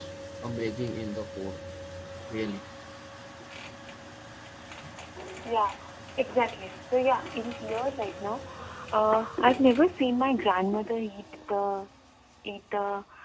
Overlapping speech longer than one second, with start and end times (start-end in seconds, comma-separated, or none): none